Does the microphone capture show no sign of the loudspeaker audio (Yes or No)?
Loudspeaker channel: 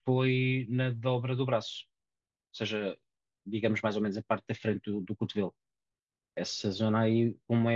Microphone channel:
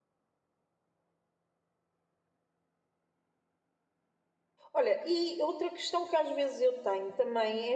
Yes